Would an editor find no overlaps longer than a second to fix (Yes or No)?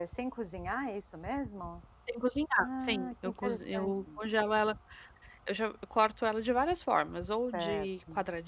No